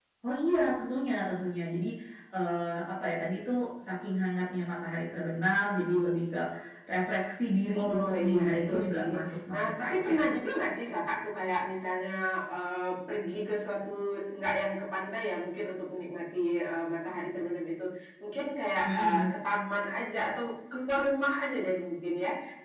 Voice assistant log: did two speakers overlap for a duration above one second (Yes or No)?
Yes